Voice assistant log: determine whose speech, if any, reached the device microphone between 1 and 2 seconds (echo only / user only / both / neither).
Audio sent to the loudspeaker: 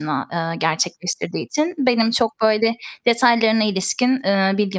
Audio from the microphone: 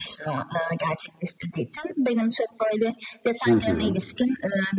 echo only